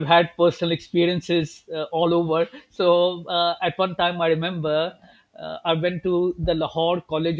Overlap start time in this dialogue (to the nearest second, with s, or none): none